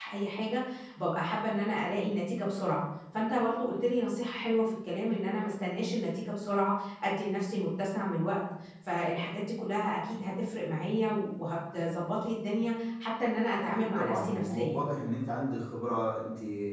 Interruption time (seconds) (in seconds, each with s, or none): 13.6 s